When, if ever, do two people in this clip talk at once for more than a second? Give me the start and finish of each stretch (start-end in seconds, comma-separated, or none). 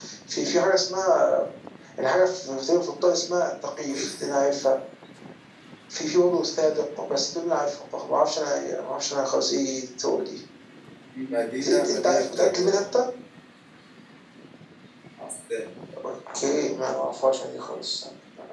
11.7-12.9